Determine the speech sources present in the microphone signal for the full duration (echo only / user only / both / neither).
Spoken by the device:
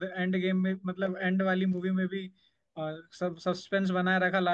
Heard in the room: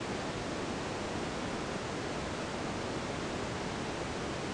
neither